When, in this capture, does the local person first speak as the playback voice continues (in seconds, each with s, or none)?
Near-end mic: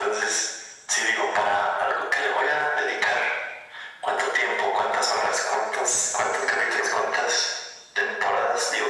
none